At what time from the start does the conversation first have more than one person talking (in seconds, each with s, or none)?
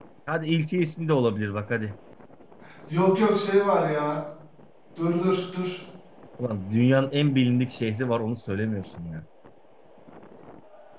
none